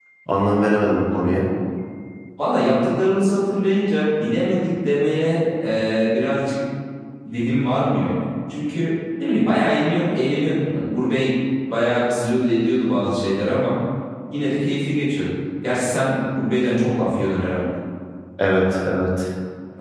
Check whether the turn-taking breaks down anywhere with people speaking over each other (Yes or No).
No